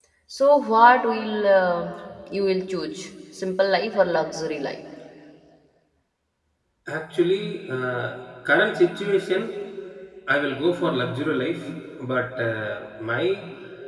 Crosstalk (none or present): none